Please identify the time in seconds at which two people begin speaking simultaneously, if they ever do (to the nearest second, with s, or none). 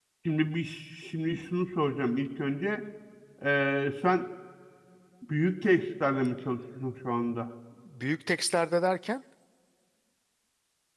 none